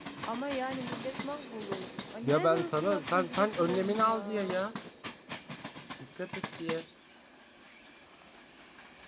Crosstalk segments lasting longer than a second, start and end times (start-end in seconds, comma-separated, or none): 2.2-4.5